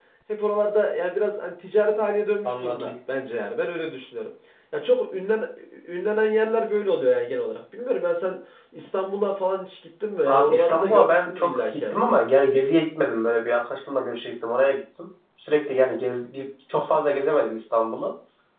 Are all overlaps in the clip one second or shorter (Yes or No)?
No